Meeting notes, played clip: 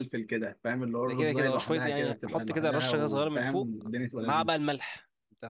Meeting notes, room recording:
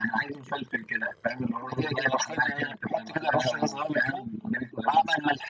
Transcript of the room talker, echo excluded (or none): none